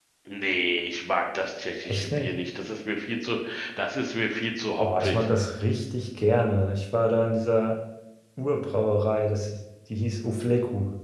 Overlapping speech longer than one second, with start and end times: none

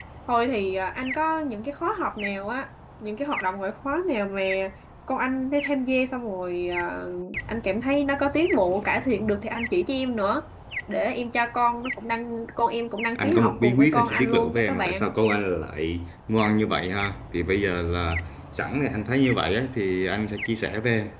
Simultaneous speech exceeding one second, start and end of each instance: 13.2-15.1

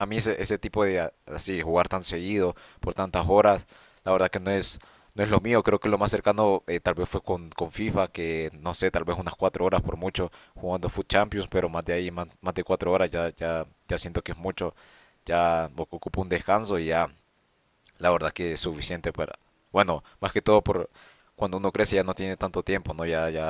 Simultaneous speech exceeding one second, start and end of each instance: none

